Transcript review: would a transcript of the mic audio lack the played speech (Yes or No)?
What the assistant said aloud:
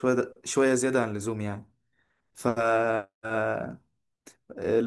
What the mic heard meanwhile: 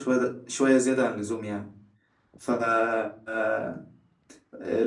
No